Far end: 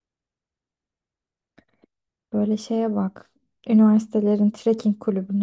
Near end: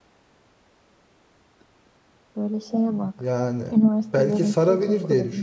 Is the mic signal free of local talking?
No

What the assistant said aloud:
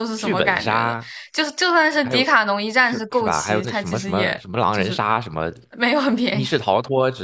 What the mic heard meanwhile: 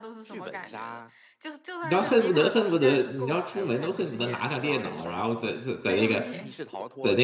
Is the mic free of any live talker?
No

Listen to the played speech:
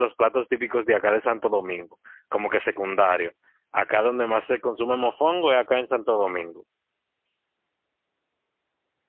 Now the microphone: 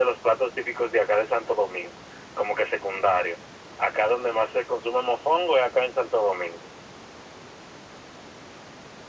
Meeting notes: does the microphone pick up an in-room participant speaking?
No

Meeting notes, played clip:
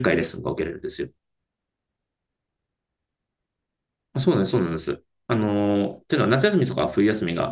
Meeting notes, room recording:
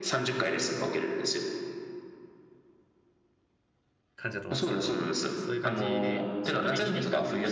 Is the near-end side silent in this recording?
No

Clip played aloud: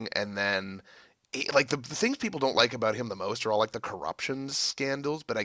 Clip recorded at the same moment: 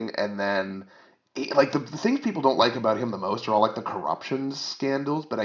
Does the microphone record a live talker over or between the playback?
No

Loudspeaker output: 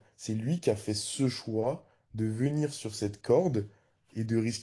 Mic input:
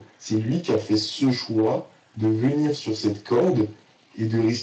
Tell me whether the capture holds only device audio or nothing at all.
Yes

